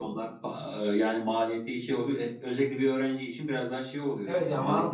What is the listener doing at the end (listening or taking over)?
taking over